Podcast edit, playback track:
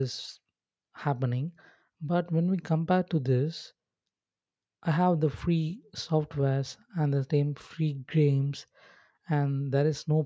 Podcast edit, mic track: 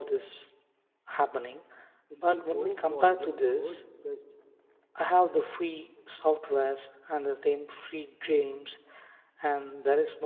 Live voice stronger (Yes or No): No